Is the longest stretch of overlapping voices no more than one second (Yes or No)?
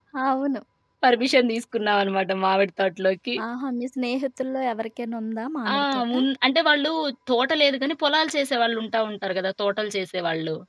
Yes